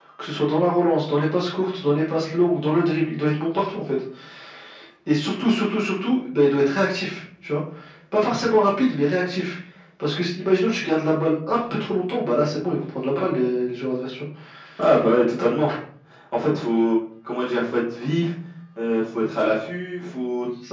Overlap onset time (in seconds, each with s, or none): none